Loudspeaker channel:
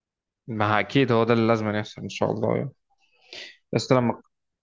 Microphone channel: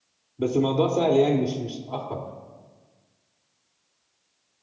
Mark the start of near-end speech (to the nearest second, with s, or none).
0 s